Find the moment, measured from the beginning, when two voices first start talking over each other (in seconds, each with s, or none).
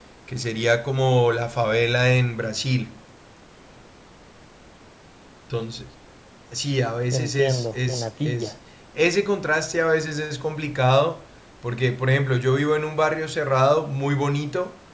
7.1 s